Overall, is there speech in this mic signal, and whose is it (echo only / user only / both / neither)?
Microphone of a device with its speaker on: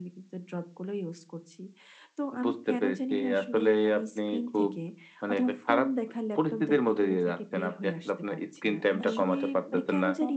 both